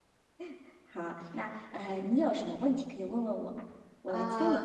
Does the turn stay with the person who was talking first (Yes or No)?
No